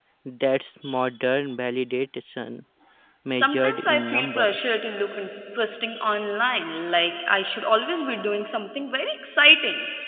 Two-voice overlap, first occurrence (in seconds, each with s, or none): 3.3 s